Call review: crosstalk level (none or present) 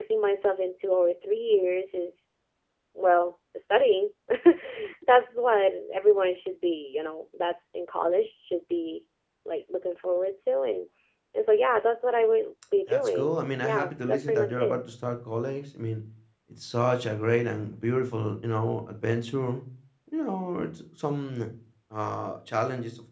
present